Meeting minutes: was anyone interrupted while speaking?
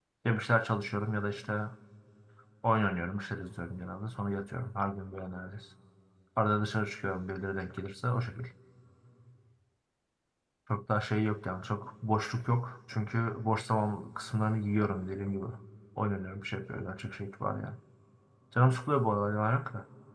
No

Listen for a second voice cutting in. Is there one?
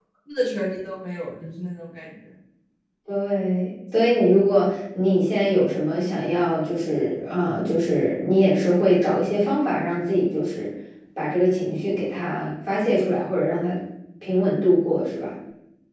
No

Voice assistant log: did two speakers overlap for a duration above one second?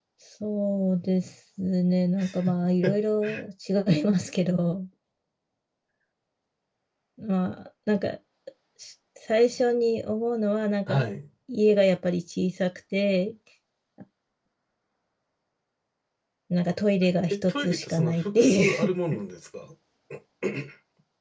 Yes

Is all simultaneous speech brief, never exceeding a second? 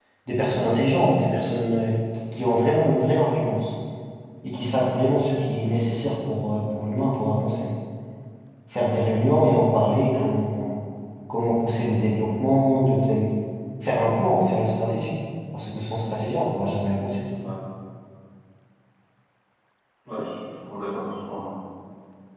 Yes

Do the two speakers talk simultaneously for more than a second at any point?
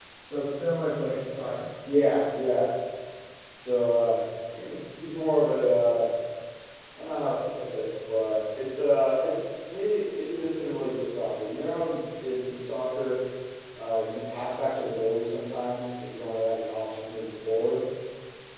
No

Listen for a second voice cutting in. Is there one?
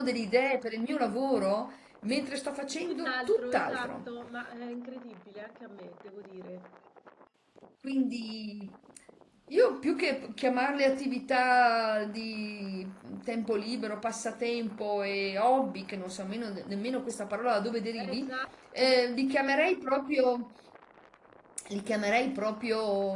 Yes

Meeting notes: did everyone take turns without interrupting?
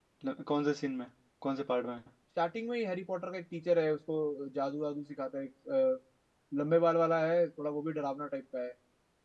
Yes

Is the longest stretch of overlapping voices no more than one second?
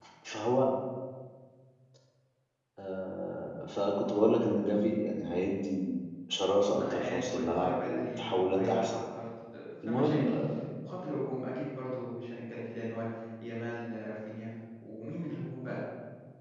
No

